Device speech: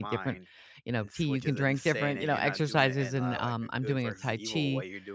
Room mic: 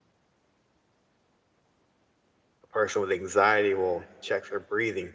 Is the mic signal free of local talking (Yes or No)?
No